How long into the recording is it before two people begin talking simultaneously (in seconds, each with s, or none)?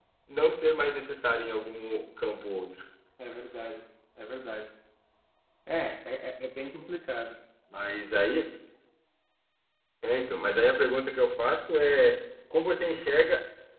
none